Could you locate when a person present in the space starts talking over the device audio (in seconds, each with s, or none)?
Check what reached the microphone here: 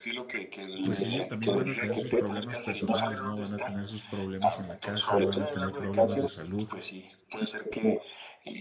0.8 s